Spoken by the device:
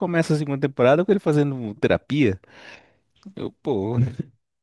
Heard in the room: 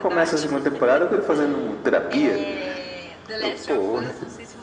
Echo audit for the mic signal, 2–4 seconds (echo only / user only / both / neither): both